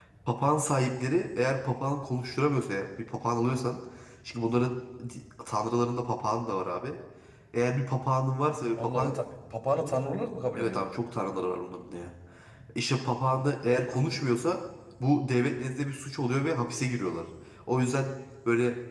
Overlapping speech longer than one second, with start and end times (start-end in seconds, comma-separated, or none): none